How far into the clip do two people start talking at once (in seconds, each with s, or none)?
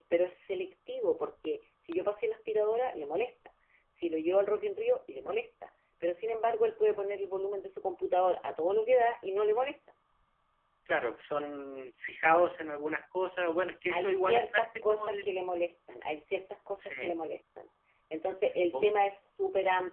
13.9 s